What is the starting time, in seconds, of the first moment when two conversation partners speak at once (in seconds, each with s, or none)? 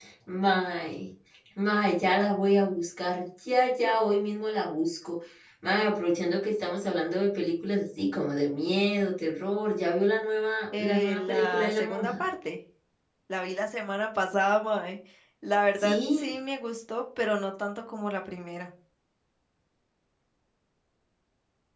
10.8 s